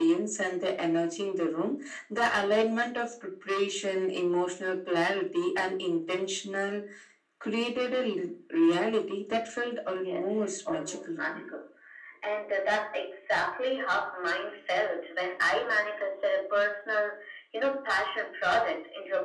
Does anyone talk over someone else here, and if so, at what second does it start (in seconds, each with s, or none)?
9.9 s